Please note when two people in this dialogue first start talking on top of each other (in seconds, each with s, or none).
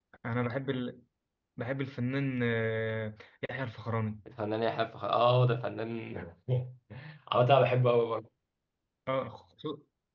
none